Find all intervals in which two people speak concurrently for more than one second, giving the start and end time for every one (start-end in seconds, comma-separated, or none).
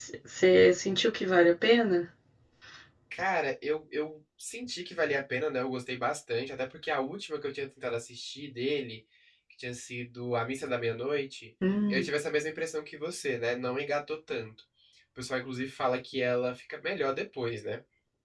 none